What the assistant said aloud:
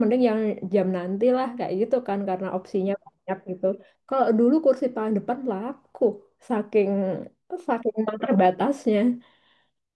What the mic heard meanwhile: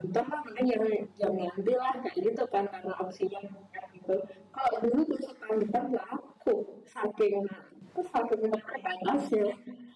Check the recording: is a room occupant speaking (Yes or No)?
No